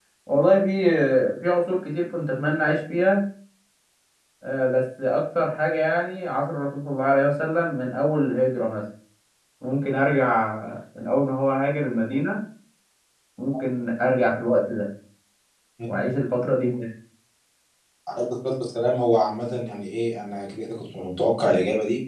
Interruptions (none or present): none